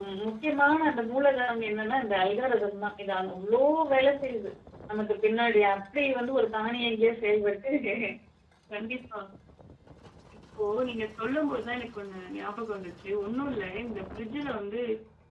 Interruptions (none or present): none